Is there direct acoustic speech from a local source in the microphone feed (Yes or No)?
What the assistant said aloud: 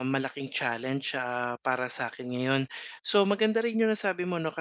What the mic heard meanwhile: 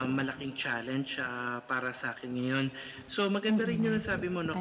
Yes